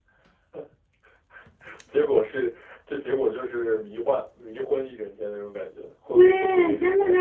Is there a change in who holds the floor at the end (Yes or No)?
Yes